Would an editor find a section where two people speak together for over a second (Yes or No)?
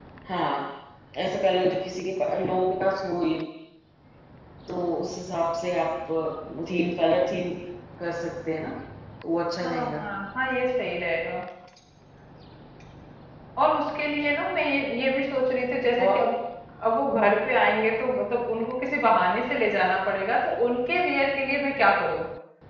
No